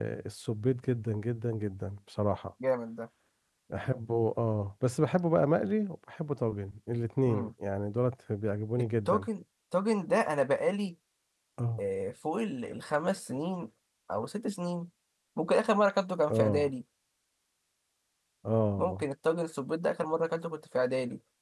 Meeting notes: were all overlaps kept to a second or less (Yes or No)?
Yes